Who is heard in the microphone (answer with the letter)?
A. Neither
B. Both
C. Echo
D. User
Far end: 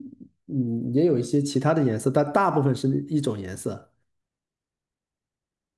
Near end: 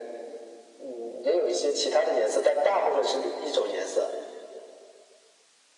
C